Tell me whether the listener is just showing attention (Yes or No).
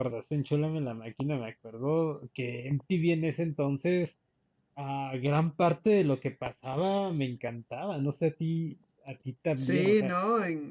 No